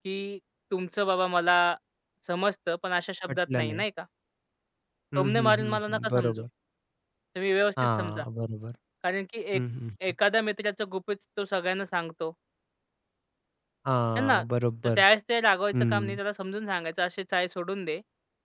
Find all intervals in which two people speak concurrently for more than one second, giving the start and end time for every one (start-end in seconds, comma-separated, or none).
5.2-6.4